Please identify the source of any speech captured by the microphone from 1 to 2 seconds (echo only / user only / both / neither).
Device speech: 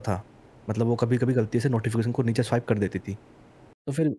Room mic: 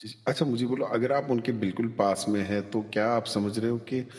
user only